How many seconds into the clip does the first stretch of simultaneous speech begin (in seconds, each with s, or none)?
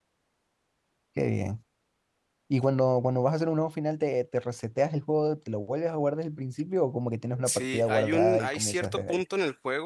7.4 s